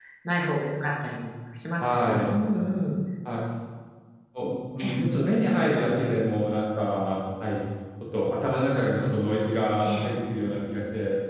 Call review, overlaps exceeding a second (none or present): none